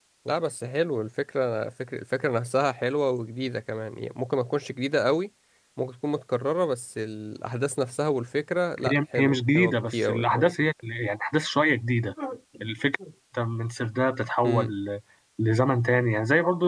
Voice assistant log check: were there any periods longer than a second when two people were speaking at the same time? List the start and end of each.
8.9-10.5

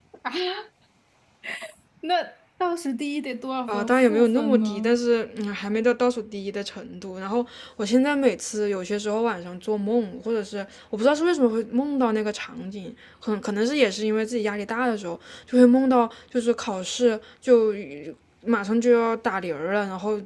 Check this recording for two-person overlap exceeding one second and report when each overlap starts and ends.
3.7-5.0

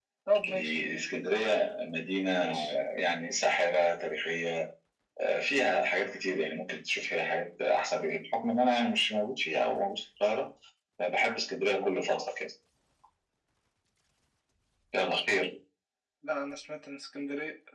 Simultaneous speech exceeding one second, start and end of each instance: none

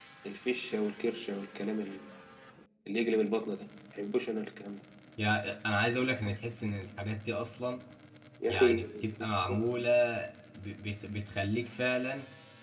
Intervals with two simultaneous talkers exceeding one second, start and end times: none

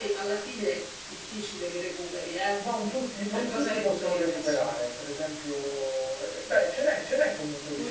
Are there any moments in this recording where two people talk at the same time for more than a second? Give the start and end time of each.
3.3-4.7

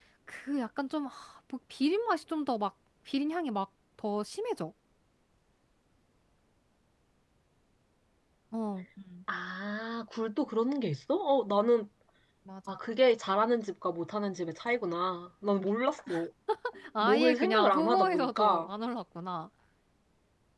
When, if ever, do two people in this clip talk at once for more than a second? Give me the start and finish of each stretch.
17.0-18.7

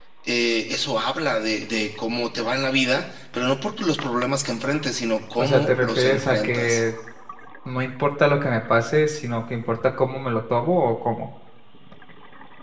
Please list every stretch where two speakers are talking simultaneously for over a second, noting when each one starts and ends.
5.4-6.8

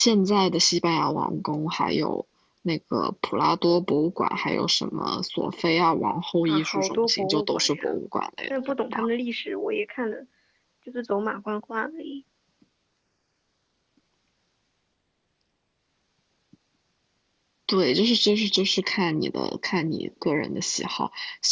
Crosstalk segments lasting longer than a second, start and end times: 6.4-7.9

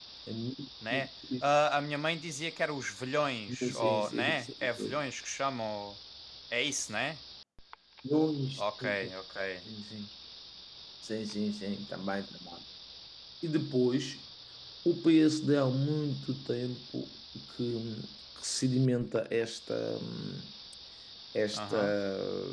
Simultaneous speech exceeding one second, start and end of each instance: 3.5-5.0

